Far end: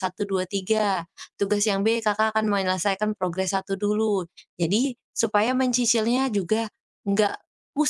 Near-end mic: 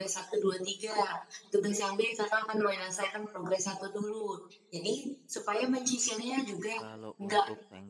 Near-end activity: present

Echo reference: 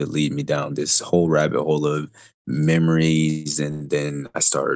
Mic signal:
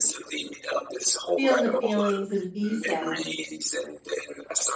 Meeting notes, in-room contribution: present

